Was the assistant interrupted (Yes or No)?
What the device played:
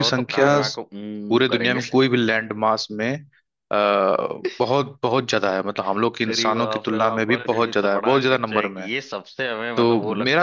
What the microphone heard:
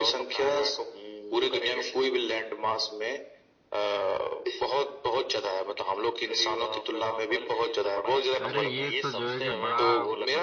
Yes